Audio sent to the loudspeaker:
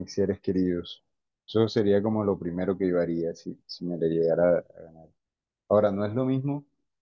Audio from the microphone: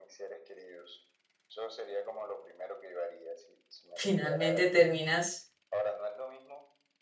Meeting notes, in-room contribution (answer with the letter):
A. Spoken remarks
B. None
A